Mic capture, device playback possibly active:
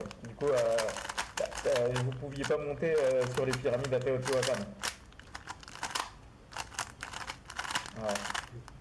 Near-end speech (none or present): present